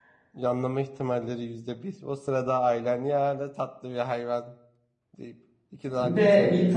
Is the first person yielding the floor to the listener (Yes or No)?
Yes